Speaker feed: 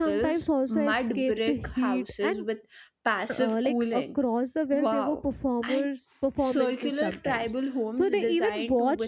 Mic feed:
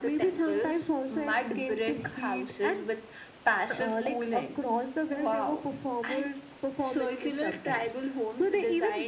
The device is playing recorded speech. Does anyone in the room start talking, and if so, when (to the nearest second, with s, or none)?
none